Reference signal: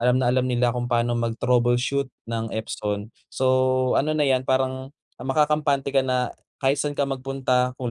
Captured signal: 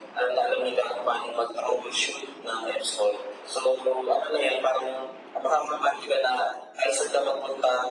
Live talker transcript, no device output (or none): none